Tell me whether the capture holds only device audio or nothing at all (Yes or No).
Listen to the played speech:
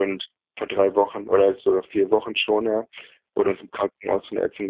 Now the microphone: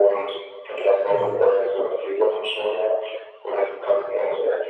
No